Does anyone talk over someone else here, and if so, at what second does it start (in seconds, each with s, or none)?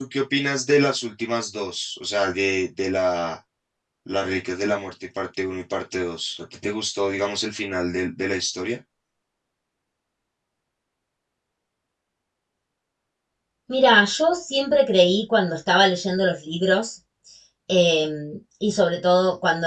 none